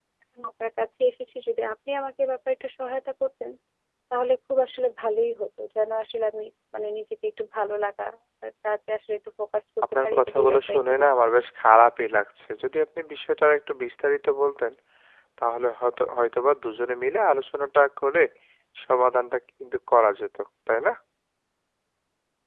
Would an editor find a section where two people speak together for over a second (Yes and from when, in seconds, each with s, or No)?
Yes, from 9.9 s